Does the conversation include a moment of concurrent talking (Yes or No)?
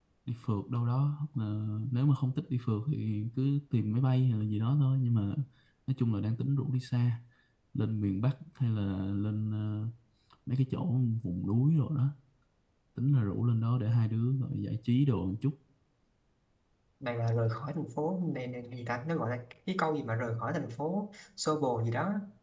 No